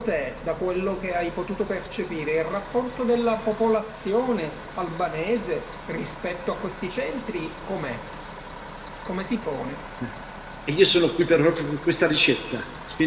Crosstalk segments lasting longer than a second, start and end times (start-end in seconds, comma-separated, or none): none